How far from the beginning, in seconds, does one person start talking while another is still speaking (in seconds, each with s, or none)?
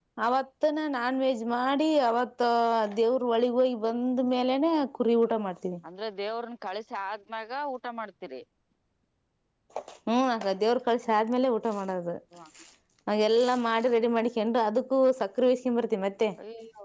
none